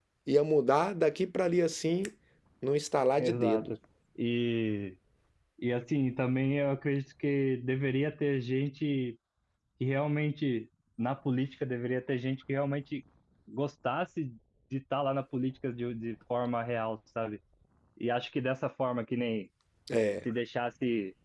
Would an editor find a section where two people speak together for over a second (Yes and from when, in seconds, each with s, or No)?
No